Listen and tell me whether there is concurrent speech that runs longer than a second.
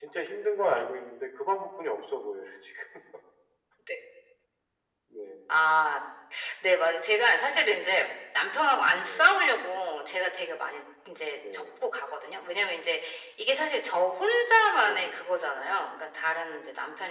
No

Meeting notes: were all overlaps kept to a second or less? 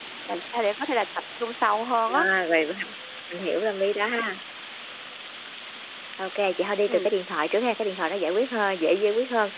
Yes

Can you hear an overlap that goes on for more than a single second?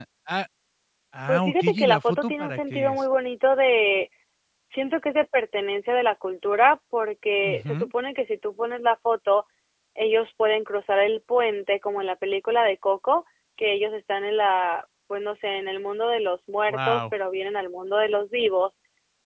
Yes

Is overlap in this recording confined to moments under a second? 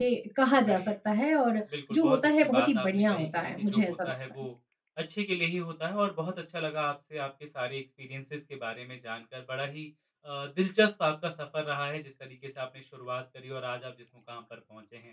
No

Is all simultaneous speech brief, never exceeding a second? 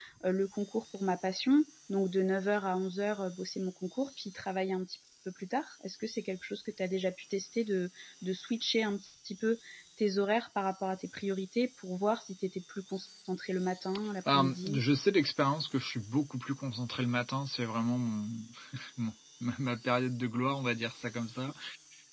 Yes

